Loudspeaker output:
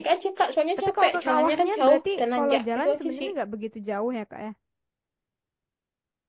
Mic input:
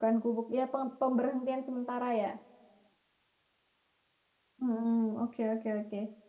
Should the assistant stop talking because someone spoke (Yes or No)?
Yes